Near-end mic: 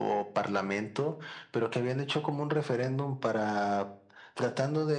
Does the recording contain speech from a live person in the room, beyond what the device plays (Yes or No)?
No